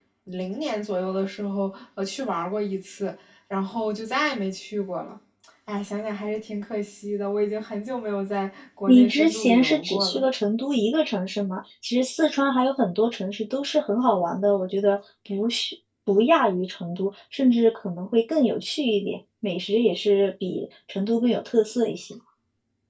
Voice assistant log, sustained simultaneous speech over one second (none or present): present